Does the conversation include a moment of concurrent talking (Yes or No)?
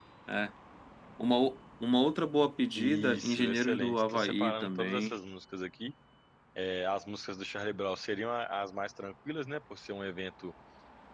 Yes